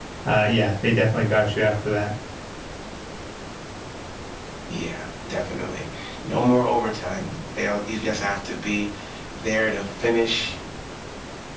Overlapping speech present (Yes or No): No